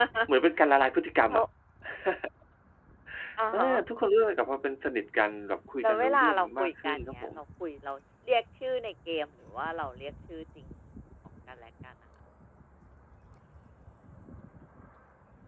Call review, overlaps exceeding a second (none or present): present